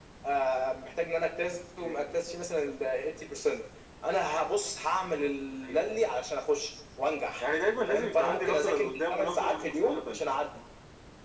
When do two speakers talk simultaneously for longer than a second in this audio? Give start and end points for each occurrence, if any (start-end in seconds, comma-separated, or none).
7.9-10.2